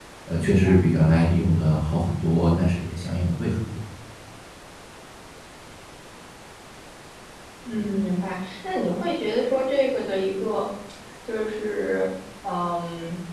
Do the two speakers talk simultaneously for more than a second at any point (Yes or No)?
No